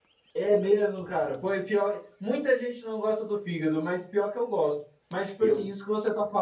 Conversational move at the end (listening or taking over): listening